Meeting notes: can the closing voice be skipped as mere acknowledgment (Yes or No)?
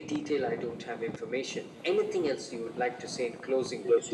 No